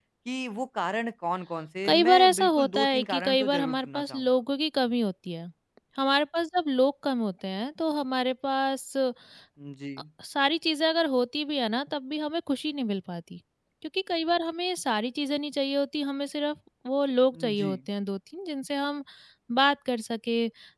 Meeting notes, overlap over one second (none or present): present